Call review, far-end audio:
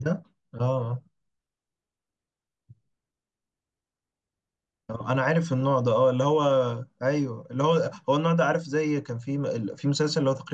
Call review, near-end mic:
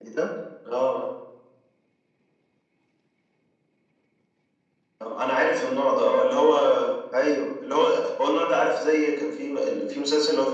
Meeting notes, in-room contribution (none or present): none